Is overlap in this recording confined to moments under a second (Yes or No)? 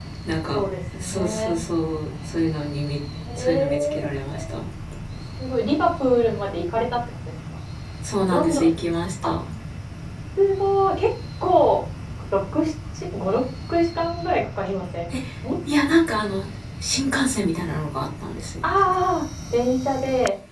No